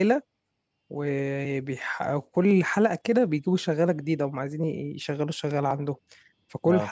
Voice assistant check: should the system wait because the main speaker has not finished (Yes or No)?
Yes